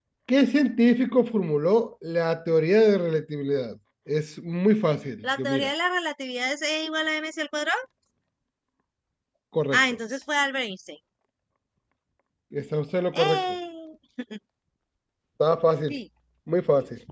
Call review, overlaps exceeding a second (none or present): none